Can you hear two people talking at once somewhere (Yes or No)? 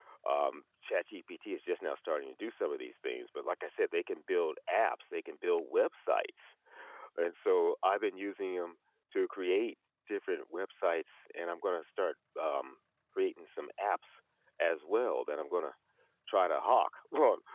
No